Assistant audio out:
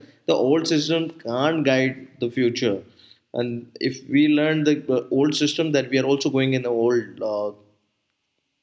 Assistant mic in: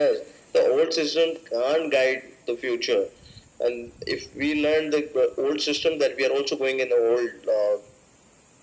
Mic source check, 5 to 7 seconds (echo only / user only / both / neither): echo only